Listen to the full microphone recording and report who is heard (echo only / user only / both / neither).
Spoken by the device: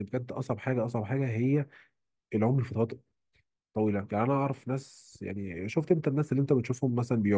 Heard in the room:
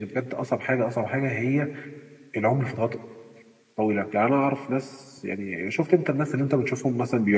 echo only